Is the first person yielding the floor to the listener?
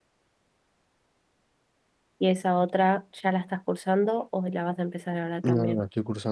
Yes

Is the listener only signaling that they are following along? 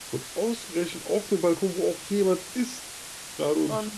Yes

